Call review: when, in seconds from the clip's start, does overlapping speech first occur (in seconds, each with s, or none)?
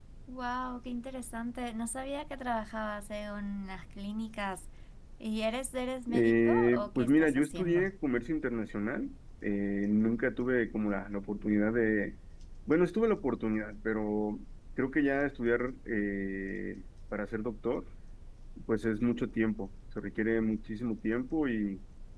6.1 s